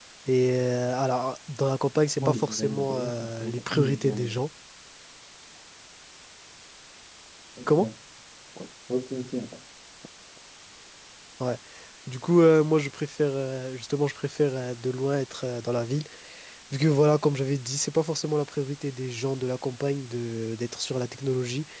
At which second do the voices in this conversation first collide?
2.2 s

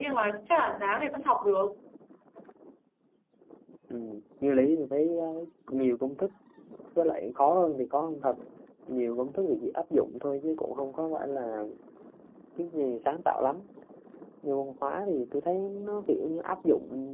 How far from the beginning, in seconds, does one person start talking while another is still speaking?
none

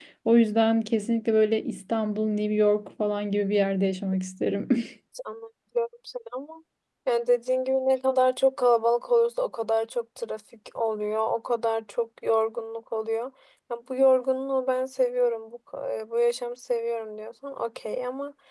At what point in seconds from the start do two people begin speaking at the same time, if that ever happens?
none

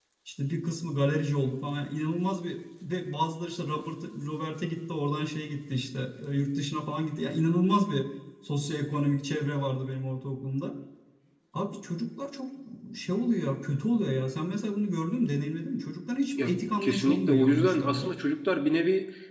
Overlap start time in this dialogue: 16.4 s

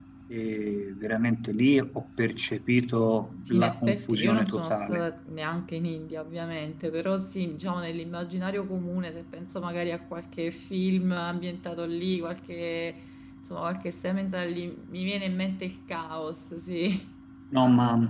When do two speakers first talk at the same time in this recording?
3.5 s

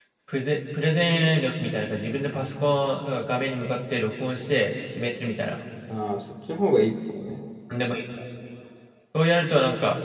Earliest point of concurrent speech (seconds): none

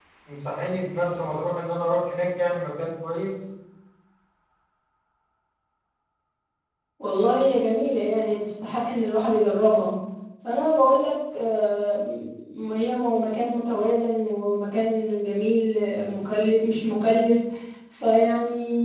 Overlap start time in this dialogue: none

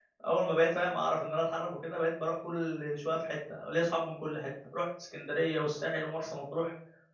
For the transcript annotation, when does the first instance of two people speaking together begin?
none

